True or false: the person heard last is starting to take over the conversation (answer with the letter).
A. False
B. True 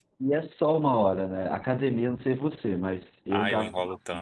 B